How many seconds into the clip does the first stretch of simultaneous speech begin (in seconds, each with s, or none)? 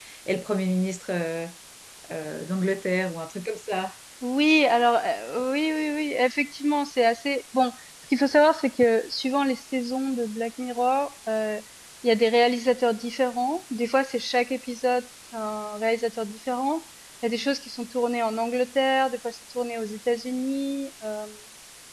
none